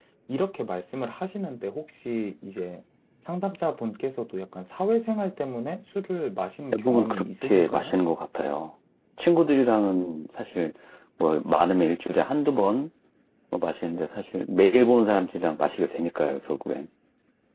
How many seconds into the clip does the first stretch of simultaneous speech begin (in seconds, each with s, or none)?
6.7 s